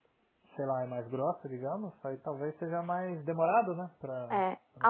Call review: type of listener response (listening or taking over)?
taking over